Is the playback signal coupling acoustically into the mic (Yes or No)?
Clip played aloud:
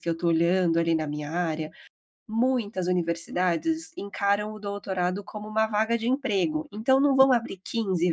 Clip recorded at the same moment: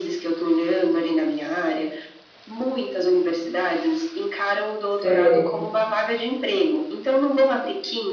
Yes